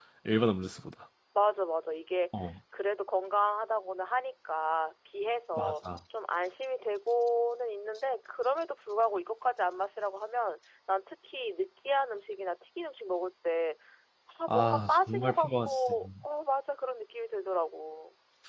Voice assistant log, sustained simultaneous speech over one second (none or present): present